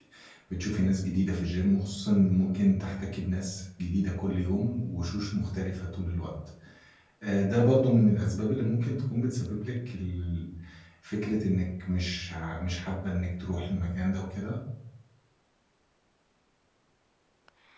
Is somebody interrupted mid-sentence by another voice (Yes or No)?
No